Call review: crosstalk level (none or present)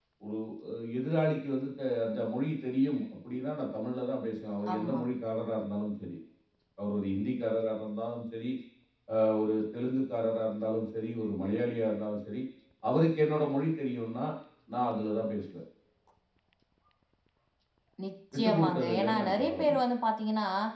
present